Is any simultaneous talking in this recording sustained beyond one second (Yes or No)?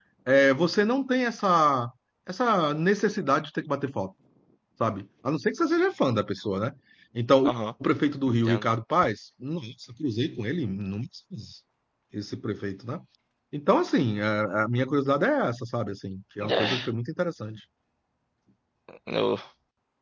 No